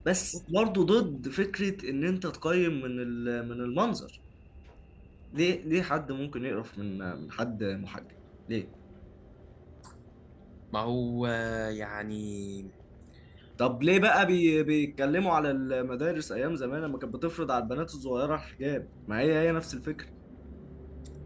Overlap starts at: none

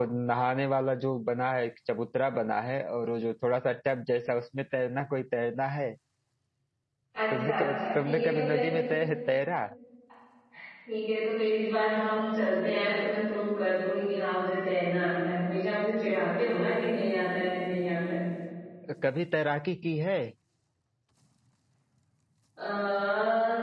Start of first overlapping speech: 7.3 s

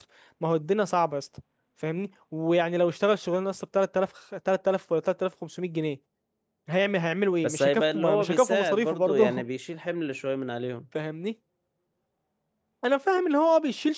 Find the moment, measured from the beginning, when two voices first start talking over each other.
7.4 s

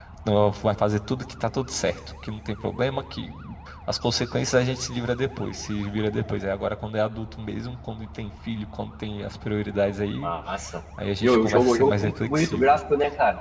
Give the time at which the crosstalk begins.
11.2 s

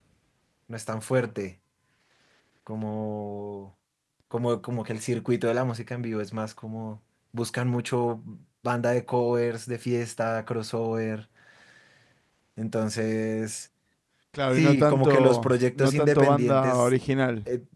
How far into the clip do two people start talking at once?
14.5 s

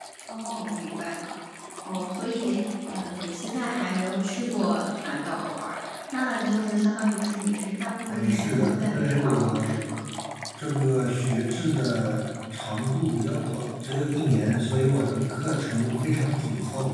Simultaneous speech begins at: 8.1 s

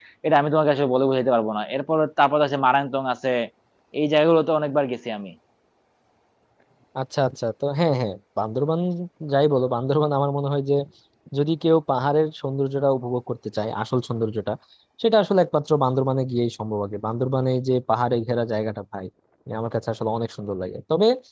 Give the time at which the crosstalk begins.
none

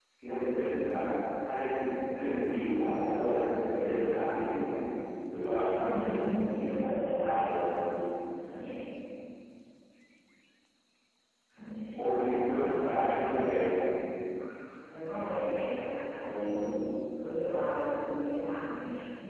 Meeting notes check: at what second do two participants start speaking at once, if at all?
5.9 s

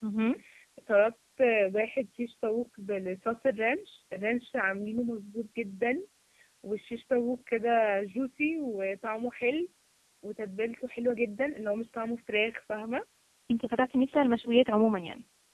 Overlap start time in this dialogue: none

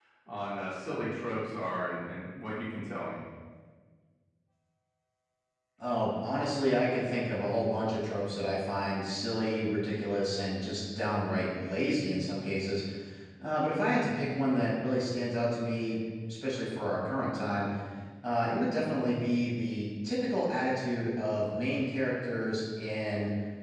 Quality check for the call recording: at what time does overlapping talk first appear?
none

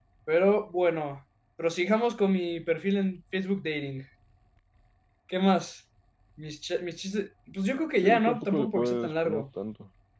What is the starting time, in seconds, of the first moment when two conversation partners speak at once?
8.0 s

